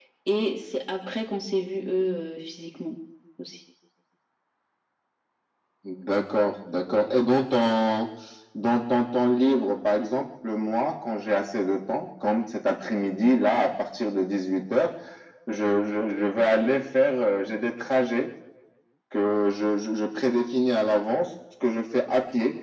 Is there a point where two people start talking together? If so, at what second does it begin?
none

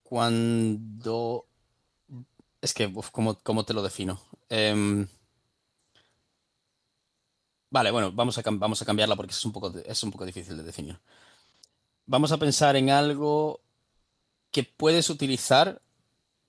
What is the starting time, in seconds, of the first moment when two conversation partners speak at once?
none

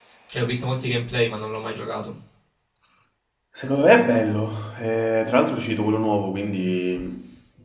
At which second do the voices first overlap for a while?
none

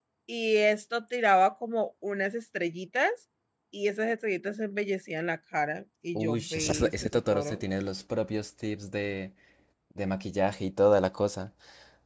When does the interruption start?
6.2 s

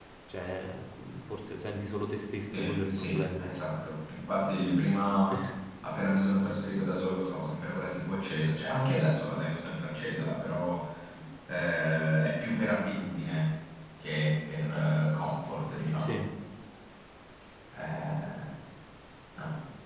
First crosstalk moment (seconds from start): 2.5 s

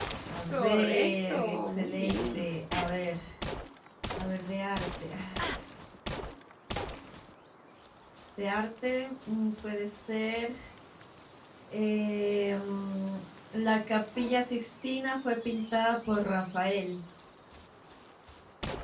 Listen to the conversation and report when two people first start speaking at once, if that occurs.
0.5 s

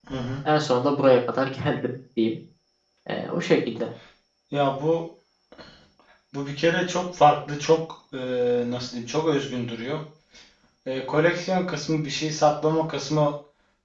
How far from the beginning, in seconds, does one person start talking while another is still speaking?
none

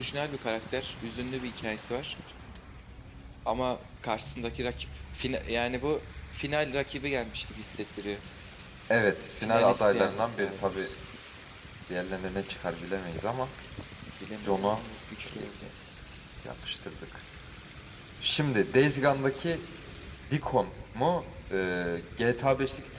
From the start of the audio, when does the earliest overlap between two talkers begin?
9.4 s

